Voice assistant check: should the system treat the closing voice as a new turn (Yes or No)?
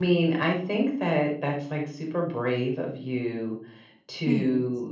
No